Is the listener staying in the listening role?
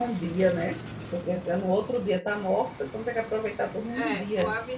No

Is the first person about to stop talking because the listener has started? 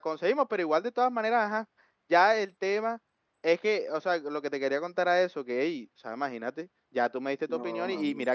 No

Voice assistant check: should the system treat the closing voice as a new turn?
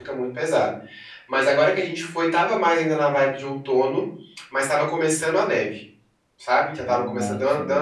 No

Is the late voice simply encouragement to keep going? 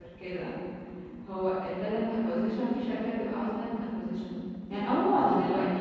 Yes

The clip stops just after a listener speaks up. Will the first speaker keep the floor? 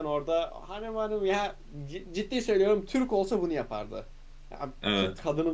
Yes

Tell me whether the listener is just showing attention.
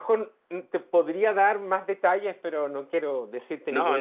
No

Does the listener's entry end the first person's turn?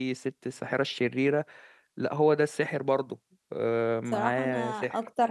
Yes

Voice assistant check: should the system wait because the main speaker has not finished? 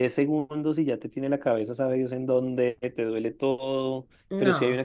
Yes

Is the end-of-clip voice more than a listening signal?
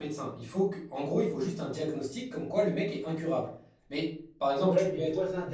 Yes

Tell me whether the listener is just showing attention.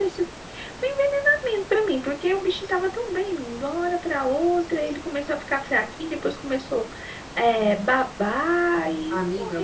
No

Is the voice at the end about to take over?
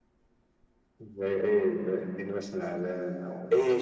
Yes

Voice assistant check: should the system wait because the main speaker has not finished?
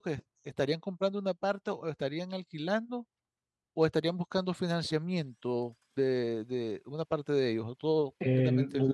No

